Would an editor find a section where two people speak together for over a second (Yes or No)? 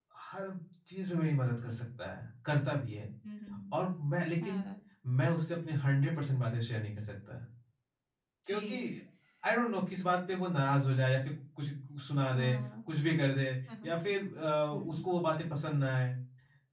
No